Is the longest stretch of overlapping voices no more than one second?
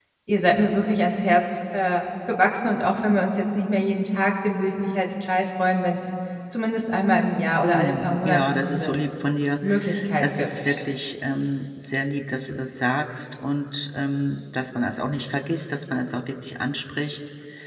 No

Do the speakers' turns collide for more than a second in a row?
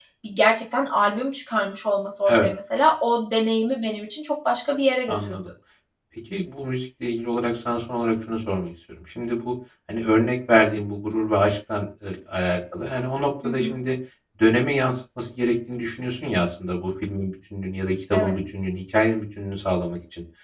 No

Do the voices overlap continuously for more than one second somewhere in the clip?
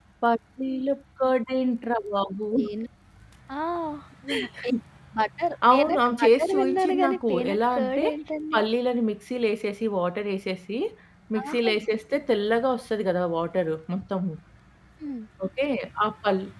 Yes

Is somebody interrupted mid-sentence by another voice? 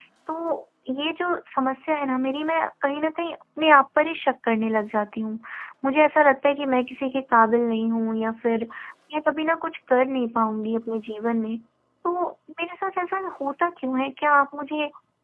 No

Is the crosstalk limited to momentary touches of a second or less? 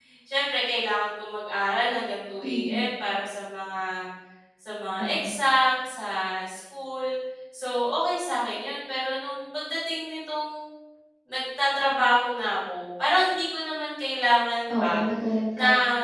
Yes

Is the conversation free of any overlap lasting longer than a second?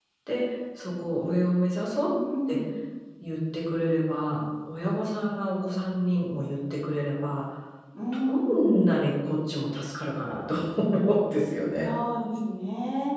Yes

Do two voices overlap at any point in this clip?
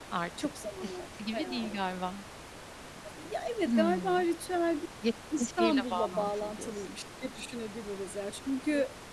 Yes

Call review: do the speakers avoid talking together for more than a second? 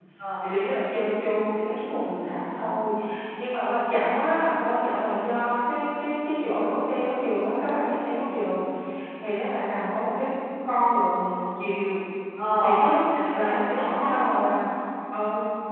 No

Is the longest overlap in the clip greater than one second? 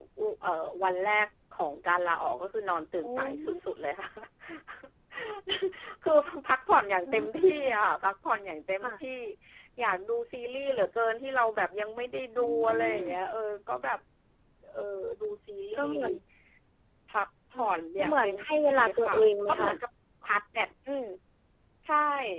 Yes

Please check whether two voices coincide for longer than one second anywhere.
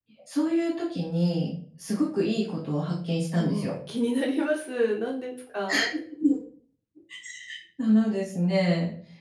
No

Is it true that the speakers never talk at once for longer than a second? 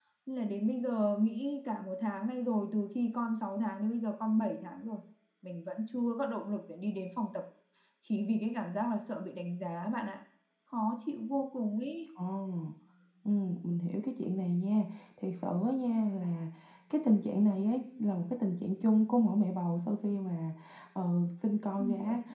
Yes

